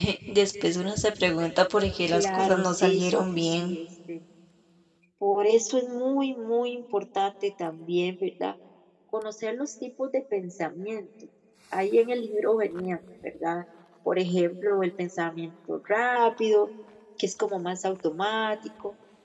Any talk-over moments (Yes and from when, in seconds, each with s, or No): Yes, from 2.1 s